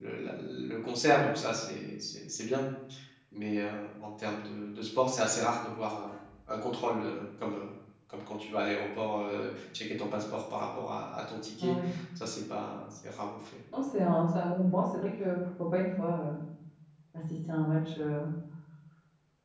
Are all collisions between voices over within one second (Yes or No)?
Yes